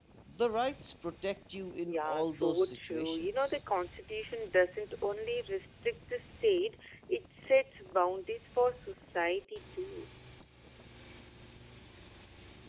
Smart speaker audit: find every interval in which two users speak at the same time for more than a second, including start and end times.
1.9-3.6

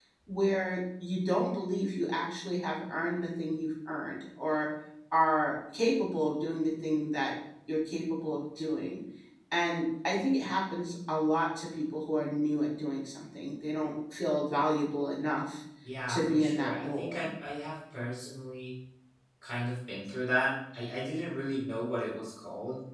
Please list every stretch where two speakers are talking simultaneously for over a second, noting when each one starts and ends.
16.1-17.3

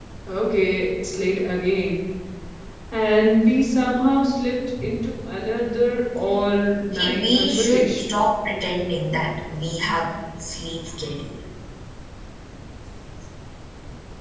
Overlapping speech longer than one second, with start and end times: 6.9-8.2

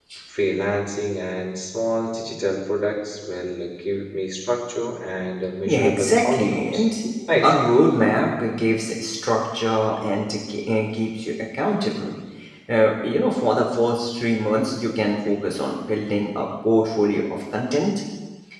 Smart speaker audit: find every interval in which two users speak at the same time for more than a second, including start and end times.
5.6-6.8

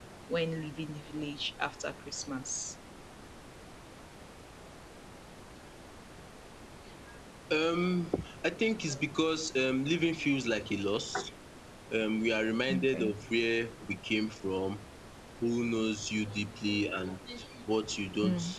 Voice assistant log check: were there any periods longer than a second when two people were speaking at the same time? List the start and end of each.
none

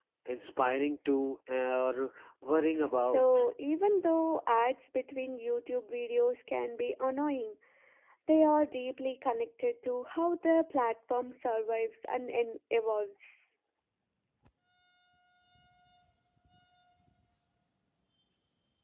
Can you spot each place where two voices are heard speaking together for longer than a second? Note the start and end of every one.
none

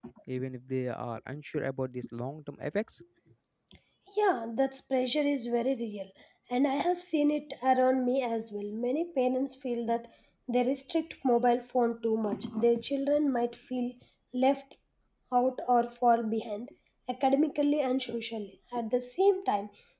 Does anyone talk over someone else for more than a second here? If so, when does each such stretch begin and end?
none

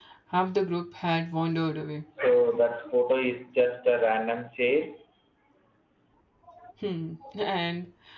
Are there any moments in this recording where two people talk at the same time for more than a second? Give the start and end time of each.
none

